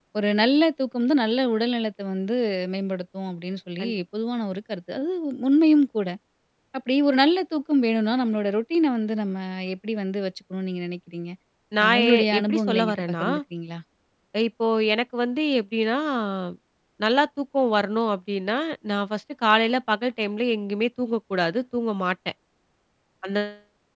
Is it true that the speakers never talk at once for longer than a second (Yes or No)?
No